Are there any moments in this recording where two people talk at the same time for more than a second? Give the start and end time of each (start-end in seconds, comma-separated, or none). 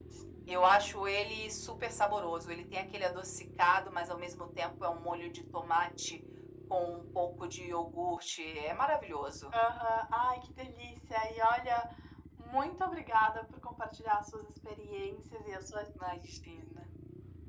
none